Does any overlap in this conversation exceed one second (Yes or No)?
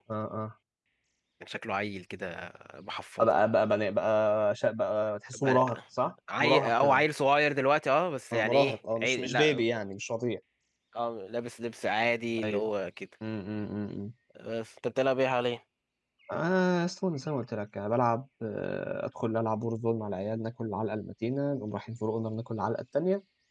Yes